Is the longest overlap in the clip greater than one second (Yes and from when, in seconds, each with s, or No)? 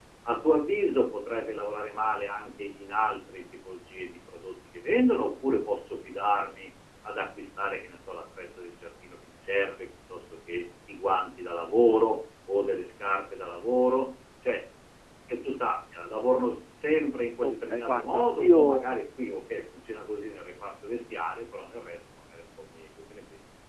Yes, from 17.4 s